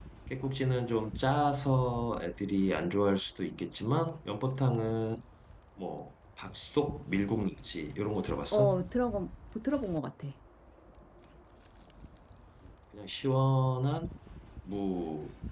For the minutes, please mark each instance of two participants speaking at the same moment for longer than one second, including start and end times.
none

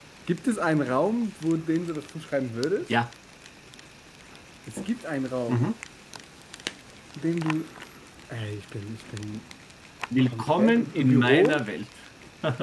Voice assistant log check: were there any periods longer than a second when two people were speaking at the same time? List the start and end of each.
10.2-11.6

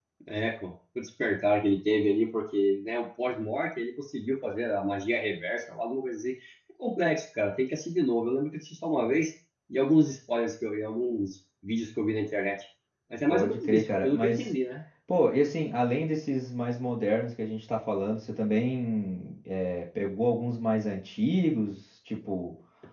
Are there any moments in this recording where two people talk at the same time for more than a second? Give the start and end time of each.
13.3-14.5

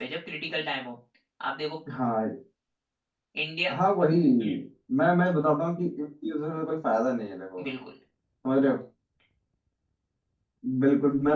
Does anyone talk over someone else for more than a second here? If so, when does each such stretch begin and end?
none

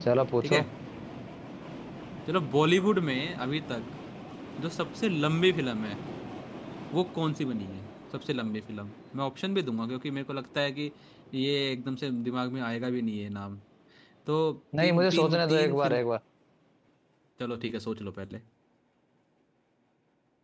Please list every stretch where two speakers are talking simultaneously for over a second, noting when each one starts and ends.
14.8-16.0

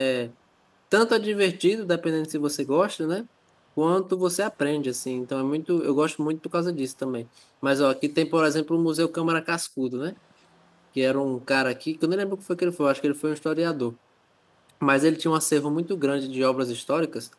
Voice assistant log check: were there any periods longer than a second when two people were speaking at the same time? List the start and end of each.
none

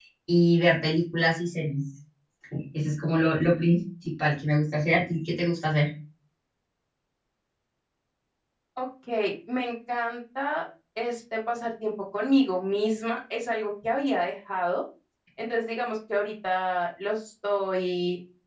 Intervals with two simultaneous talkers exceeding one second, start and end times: none

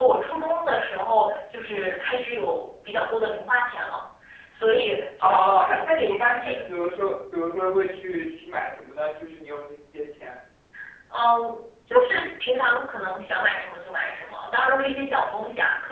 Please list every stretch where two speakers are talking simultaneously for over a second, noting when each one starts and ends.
5.2-6.6

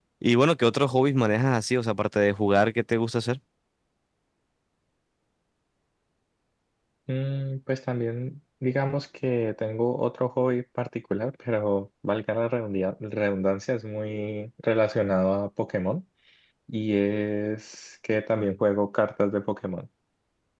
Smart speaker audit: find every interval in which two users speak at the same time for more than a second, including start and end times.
none

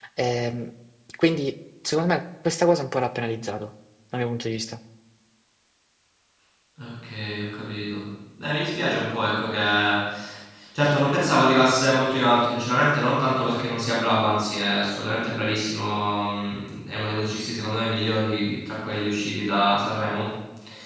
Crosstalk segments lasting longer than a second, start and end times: none

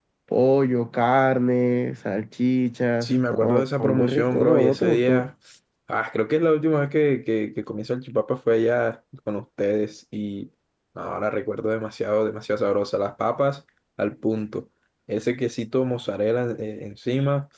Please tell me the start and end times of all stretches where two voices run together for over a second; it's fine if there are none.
3.0-5.2

